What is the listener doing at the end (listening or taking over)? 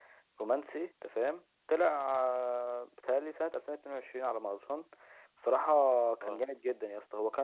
listening